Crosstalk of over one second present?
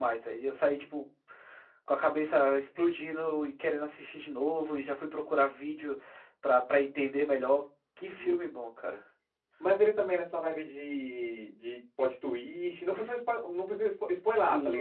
No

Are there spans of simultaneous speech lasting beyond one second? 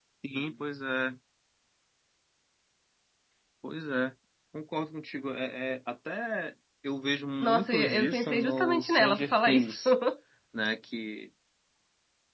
Yes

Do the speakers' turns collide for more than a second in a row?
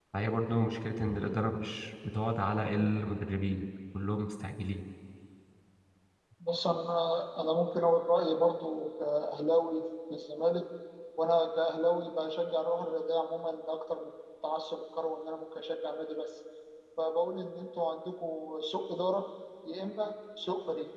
No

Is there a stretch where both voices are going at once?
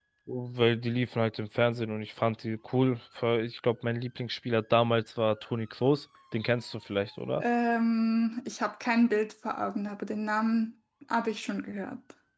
No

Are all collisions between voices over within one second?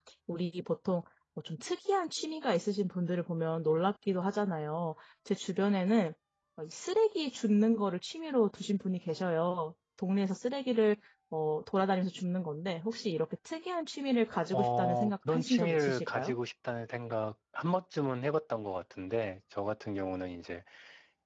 No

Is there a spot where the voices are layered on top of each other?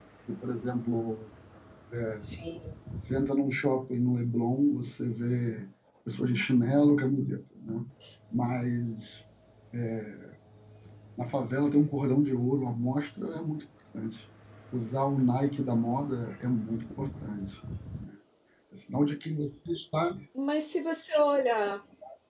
No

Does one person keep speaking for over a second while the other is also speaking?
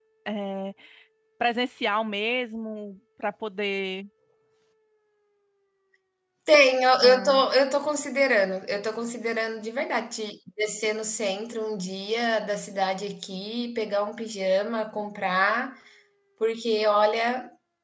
No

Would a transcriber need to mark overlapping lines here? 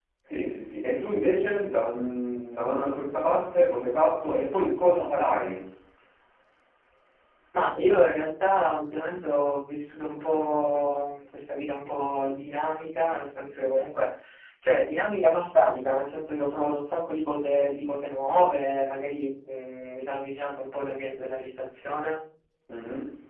No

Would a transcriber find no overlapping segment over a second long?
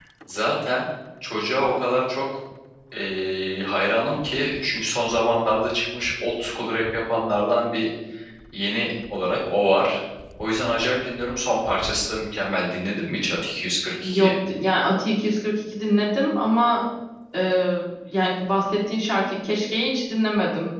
Yes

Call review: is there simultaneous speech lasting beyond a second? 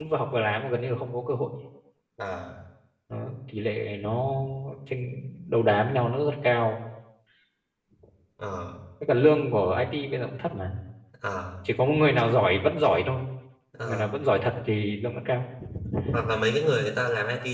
No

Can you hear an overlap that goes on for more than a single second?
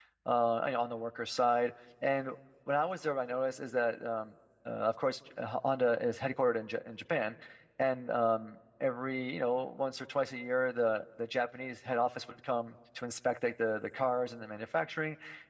No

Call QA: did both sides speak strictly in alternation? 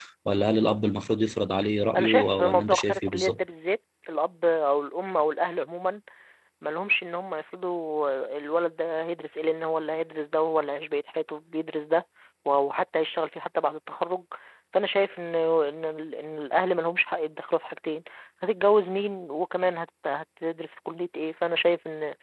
No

